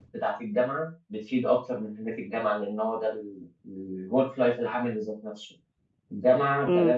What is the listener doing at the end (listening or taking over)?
listening